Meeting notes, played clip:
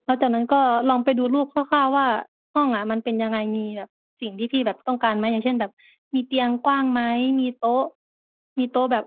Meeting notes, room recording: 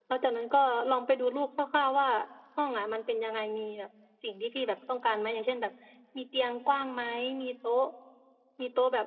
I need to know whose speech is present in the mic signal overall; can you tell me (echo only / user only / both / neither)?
echo only